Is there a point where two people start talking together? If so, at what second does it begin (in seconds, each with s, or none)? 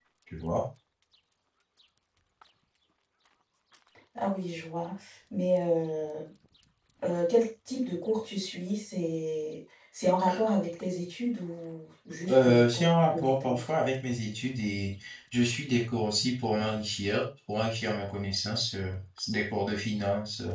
12.3 s